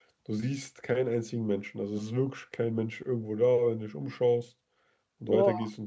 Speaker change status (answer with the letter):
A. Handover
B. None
B